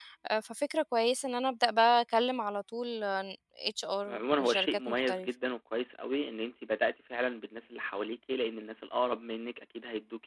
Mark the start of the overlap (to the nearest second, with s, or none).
4 s